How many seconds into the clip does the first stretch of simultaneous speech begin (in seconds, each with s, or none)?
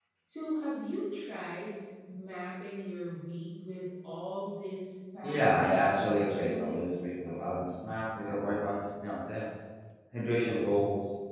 5.2 s